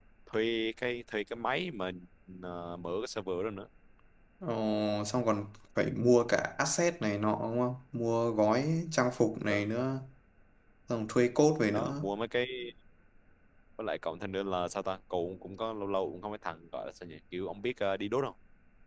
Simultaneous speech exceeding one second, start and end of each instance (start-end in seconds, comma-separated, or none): none